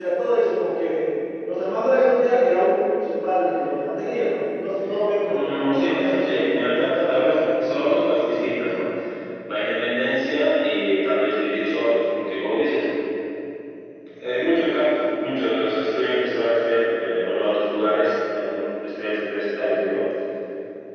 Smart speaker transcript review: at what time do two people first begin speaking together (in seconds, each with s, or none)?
5.2 s